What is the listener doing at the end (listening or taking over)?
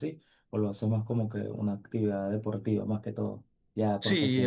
taking over